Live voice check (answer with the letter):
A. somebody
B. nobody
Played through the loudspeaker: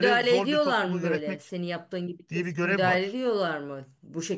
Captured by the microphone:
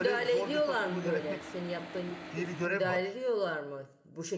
B